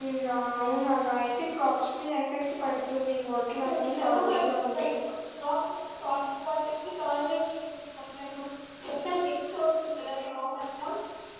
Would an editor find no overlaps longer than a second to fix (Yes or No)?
No